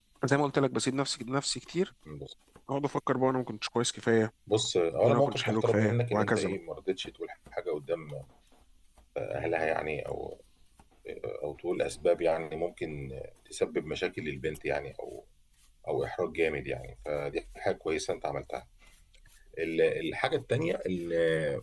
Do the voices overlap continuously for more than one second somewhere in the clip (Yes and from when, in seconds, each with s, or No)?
Yes, from 5.0 s